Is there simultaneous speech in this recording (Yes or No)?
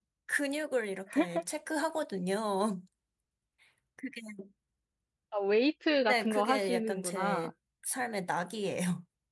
Yes